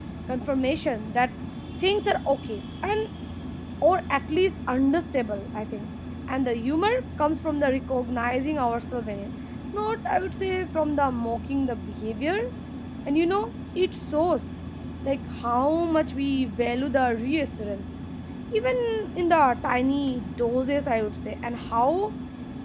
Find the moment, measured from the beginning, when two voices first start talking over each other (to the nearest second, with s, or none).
none